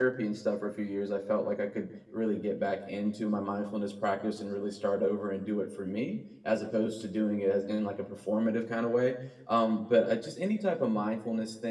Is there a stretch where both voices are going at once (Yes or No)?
No